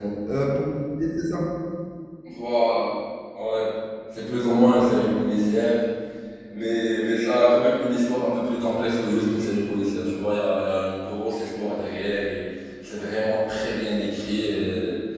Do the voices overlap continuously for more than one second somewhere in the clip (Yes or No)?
No